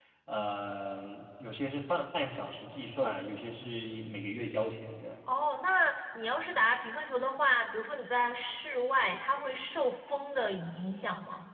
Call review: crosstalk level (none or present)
none